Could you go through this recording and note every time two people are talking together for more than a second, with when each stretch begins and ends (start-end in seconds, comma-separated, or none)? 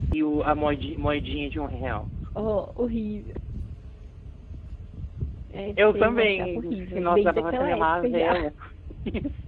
5.9-8.3